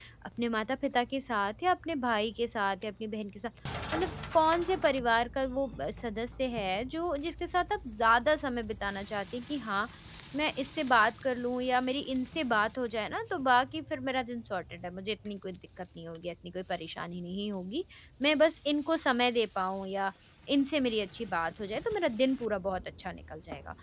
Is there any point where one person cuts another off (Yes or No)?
No